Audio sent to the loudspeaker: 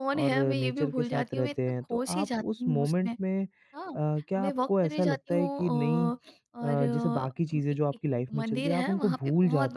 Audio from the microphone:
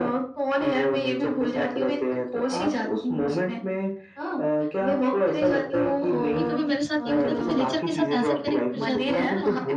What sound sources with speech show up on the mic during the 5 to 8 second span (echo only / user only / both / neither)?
both